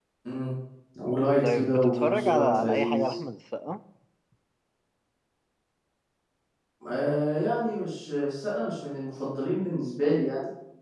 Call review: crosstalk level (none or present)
present